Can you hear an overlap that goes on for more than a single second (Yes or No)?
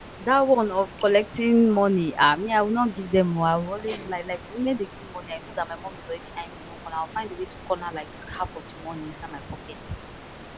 No